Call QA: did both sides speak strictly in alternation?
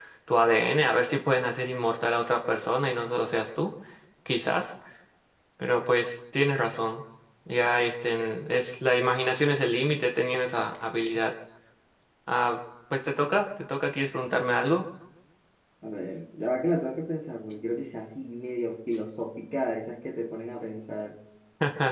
Yes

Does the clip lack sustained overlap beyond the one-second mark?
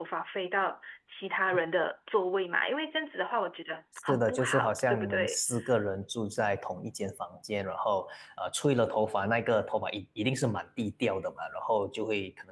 No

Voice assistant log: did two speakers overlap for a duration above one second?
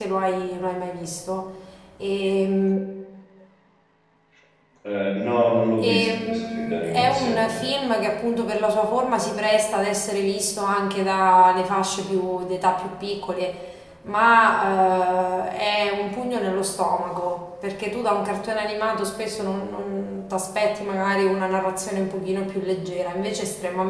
Yes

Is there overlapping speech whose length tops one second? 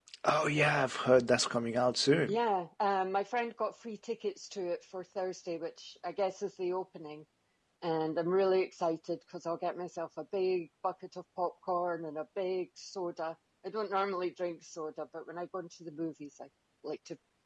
No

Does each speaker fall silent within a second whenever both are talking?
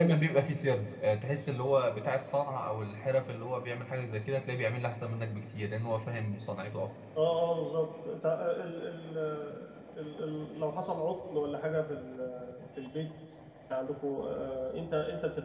Yes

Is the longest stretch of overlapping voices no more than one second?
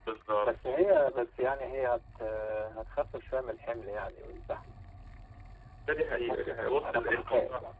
No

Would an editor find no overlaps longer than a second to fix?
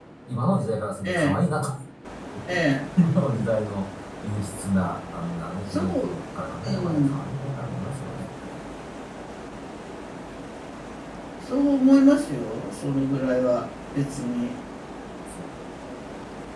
Yes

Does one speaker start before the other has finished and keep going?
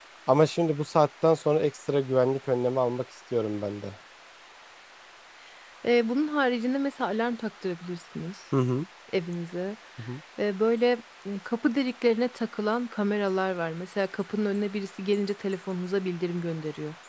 No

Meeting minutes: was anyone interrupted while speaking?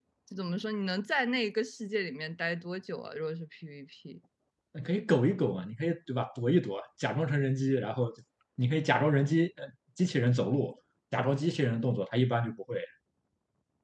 No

